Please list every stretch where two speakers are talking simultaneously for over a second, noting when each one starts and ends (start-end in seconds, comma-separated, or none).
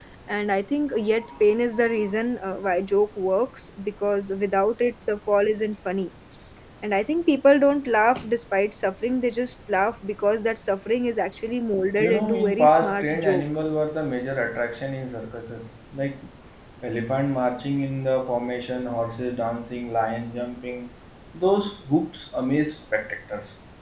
12.0-13.5